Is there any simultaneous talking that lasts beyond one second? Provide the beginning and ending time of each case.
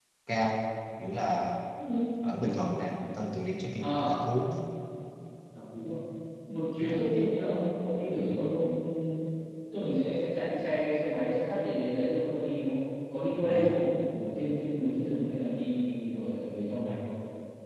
none

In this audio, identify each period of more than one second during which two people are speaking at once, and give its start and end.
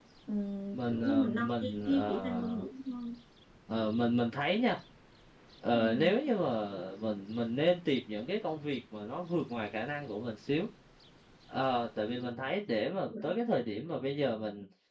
0.7-2.6

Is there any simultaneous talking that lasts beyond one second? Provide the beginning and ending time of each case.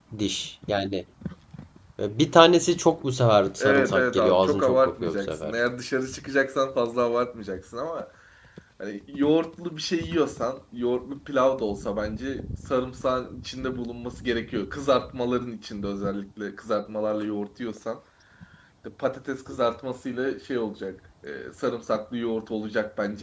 3.6-5.5

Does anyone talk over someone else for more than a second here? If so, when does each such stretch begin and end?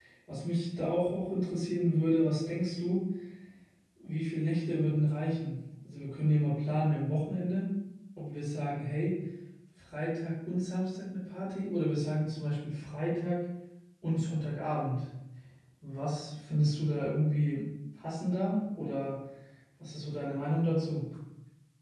none

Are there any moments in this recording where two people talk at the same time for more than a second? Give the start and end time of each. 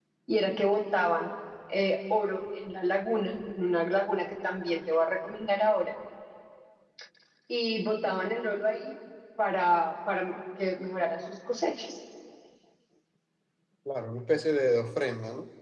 none

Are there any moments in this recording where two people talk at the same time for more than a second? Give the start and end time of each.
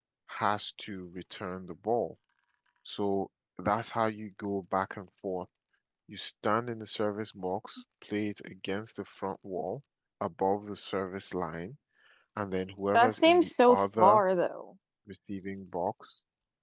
12.9-14.2

